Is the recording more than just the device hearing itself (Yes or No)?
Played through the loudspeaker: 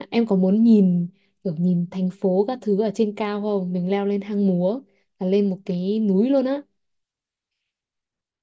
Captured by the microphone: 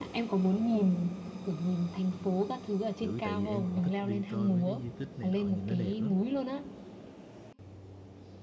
Yes